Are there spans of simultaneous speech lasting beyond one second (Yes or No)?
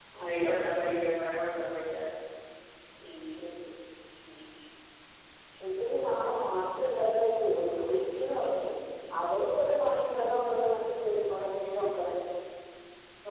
No